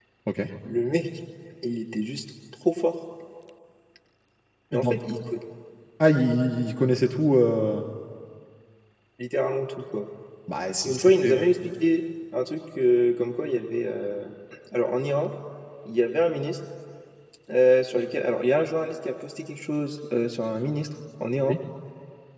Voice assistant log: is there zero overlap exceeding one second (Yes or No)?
Yes